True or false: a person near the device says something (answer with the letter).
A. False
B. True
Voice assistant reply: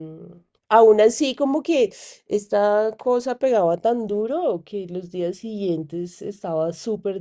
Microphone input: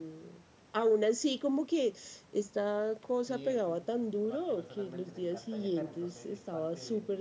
B